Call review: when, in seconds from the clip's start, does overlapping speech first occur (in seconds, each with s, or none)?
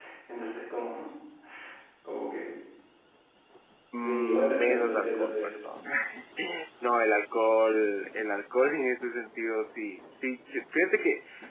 4.0 s